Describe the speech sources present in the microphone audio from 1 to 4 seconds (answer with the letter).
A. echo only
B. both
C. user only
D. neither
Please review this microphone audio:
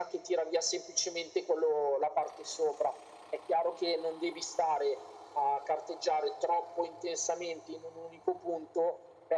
A